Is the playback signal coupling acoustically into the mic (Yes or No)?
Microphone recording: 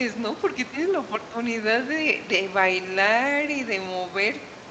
No